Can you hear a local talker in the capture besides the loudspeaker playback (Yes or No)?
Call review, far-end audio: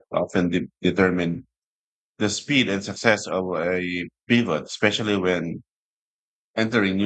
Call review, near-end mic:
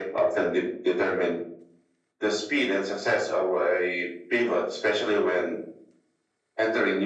No